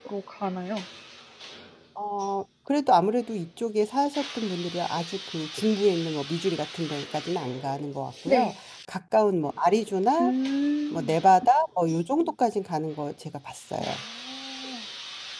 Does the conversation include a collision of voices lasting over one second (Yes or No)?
No